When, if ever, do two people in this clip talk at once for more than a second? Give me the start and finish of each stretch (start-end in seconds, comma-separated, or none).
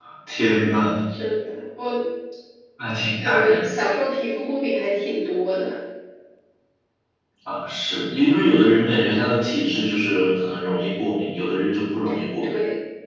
none